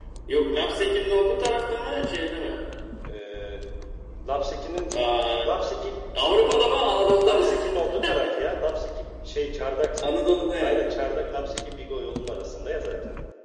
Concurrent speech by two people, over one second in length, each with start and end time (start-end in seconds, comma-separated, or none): none